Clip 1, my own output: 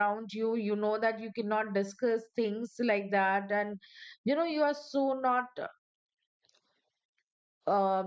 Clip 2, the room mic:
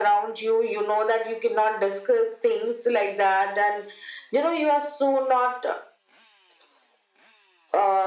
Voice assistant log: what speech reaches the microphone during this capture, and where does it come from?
echo only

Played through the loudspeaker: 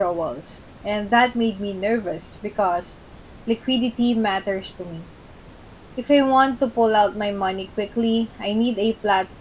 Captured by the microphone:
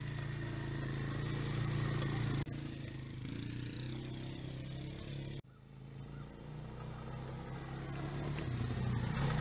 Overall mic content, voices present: neither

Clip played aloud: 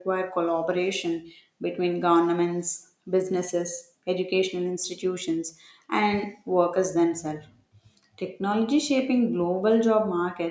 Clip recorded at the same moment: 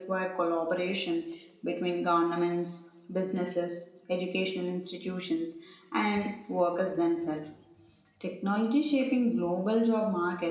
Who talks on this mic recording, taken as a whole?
echo only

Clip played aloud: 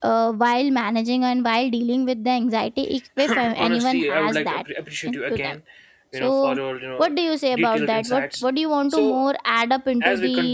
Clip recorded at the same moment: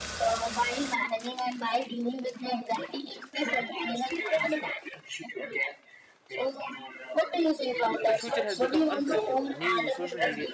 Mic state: both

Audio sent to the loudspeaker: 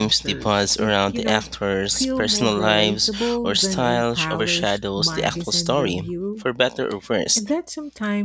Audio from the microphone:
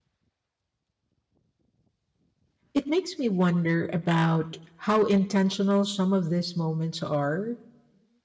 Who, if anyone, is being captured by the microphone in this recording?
user only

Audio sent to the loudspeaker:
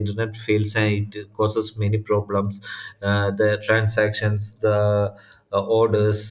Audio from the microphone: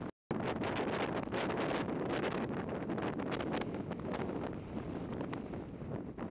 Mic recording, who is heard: neither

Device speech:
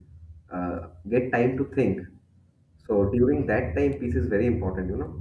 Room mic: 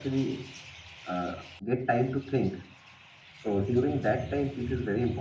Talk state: echo only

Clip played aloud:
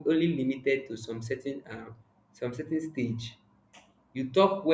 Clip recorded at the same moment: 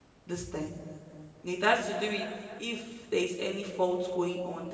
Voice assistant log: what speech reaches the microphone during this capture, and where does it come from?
user only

